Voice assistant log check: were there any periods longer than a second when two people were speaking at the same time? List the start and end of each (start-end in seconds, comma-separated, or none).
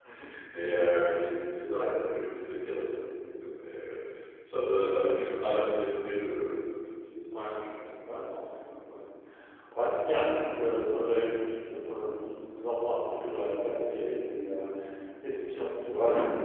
none